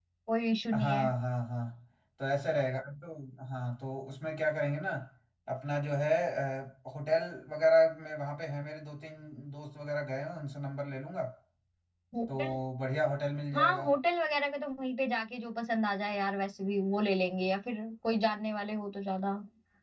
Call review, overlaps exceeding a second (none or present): none